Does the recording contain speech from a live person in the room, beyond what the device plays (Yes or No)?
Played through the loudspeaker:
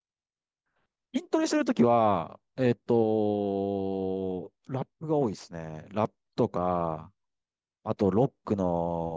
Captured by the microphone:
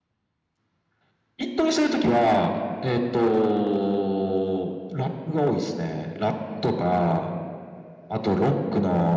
No